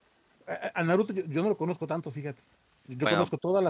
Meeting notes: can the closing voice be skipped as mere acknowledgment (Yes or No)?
Yes